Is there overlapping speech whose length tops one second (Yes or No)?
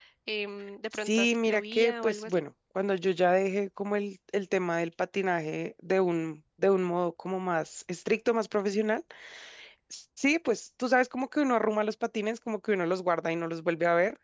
Yes